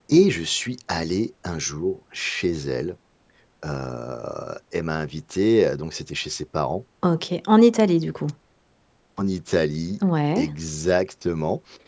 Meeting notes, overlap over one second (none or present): none